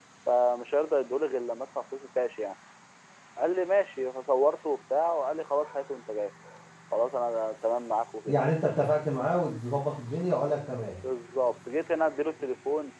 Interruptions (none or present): none